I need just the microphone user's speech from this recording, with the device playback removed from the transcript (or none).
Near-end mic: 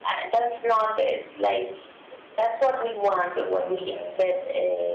uh,